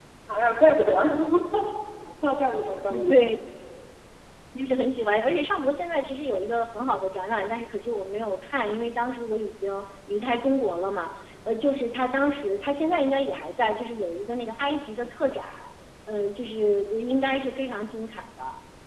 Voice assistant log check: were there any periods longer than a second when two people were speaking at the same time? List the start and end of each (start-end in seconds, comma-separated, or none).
none